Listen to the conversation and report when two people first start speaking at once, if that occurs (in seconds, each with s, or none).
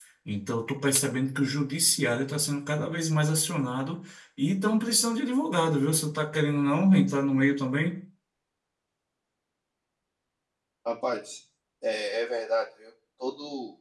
none